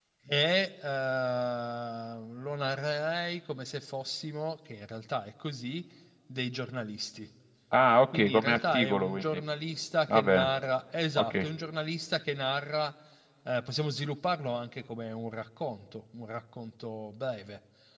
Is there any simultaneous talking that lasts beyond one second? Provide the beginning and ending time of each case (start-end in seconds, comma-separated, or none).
8.1-9.4